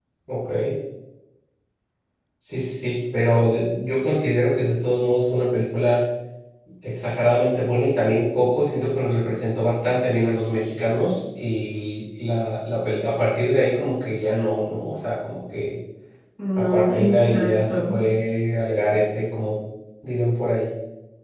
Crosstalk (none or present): present